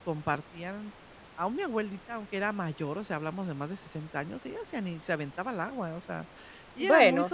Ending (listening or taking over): listening